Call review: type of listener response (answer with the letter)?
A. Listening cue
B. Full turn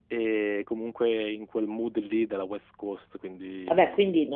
B